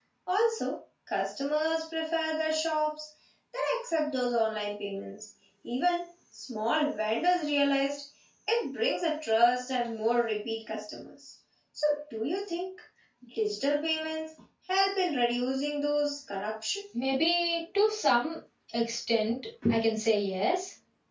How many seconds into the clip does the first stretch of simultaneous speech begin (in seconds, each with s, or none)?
none